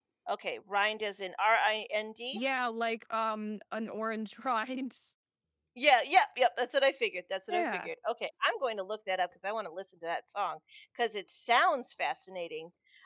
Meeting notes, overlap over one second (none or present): none